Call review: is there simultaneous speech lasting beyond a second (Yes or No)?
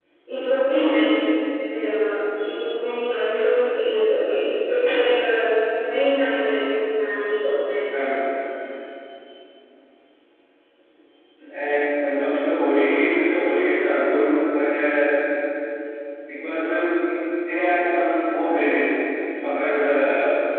No